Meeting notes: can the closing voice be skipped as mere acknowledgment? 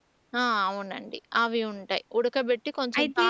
Yes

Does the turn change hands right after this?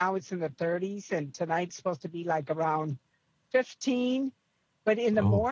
No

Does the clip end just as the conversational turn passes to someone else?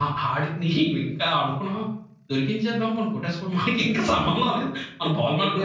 Yes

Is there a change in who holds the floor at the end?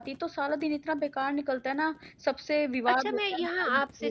Yes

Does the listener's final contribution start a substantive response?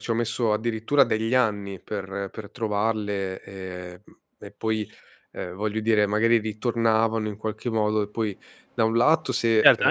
Yes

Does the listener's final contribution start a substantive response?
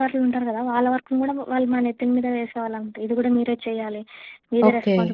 No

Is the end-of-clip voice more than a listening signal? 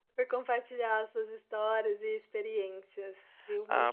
Yes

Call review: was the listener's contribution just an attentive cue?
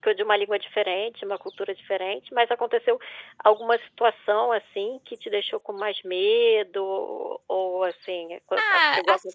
No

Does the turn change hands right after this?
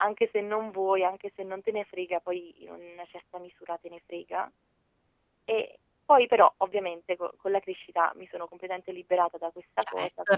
Yes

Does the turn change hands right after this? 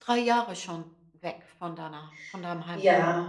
Yes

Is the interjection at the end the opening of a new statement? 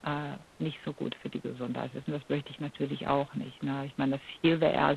No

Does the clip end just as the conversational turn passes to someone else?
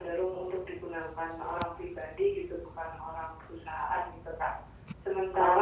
No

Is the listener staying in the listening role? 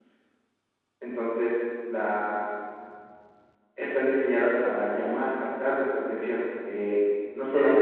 Yes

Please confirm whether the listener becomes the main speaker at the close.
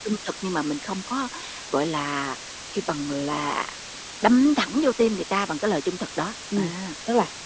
Yes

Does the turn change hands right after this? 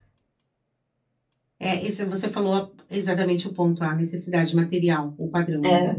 No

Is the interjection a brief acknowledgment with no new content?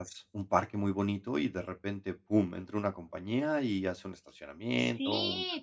No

